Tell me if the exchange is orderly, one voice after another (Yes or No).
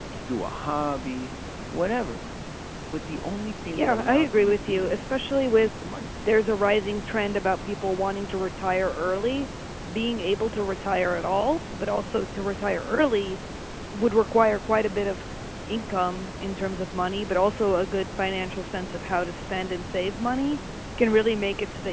No